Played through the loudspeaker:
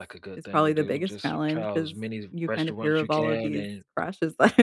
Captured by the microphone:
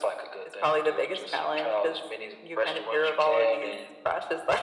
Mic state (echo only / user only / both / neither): echo only